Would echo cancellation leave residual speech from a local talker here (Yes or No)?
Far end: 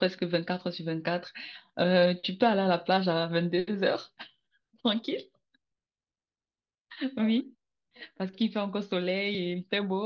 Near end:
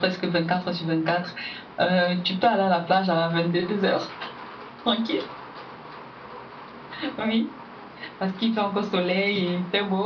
No